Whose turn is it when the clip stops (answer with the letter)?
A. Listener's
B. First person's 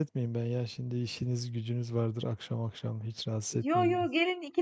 A